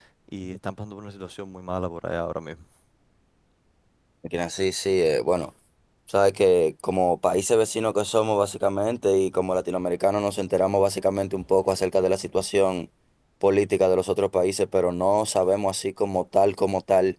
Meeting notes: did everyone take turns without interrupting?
Yes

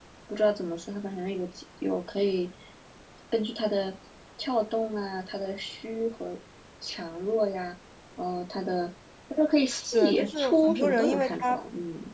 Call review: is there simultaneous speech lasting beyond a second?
Yes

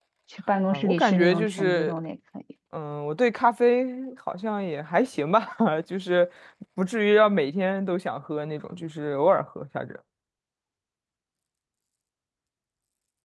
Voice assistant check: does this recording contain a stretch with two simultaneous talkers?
Yes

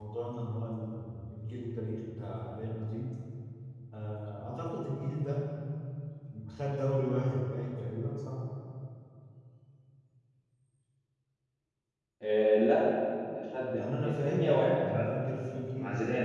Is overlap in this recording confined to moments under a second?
No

